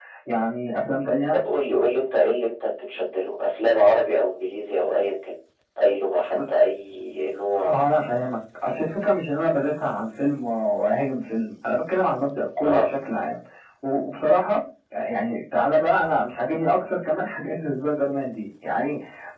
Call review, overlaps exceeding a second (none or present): none